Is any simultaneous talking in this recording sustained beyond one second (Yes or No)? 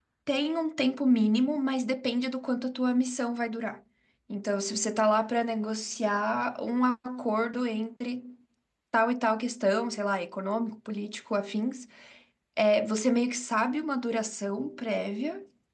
No